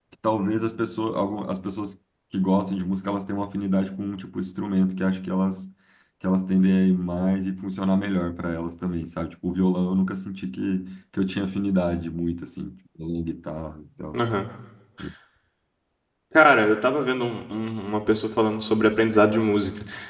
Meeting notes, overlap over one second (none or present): none